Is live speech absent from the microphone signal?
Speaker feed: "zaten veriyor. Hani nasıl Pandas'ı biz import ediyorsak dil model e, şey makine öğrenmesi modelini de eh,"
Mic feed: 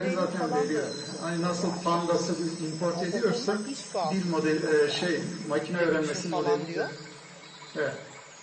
No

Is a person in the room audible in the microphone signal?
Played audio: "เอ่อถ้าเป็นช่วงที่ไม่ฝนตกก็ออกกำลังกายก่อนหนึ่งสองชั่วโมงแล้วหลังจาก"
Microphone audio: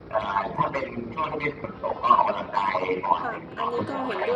Yes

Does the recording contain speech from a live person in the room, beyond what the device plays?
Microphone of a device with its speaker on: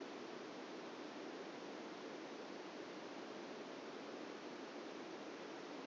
No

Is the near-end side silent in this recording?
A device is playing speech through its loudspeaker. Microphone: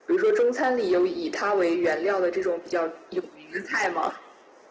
Yes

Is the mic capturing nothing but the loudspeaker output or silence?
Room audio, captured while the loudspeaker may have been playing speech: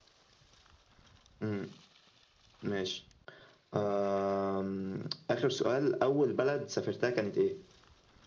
Yes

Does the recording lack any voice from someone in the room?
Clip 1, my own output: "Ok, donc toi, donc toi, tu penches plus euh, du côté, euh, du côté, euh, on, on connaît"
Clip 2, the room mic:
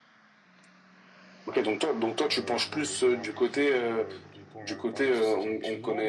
No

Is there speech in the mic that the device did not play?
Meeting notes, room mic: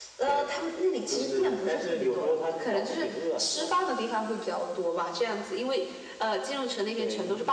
No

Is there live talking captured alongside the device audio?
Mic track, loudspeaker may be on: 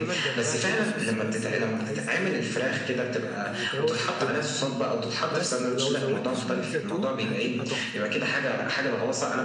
Yes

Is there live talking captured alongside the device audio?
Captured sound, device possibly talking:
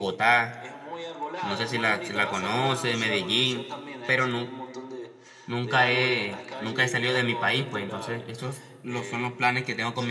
Yes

